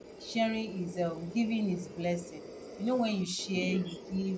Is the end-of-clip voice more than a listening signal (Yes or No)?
No